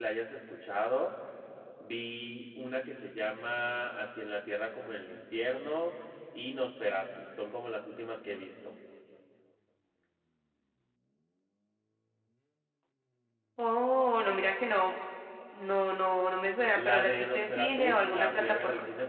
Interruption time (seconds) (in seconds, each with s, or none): 16.8 s